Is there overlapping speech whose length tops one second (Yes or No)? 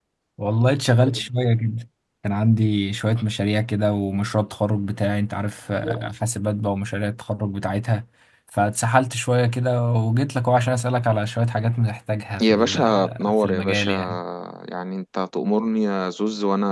Yes